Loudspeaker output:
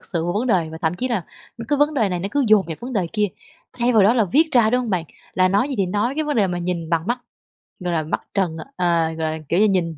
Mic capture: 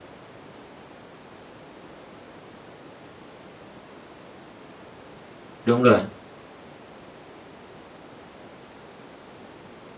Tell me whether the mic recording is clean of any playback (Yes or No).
Yes